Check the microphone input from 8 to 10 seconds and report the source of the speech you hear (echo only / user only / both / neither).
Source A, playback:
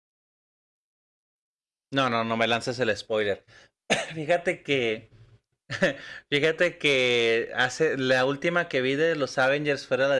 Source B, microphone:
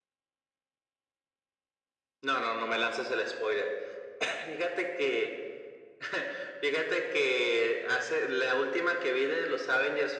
echo only